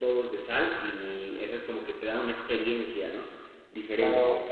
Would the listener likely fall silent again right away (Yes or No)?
No